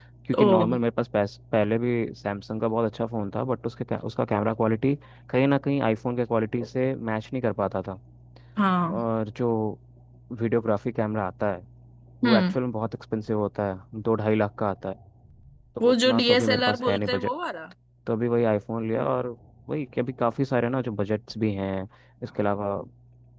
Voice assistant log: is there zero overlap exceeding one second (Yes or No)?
No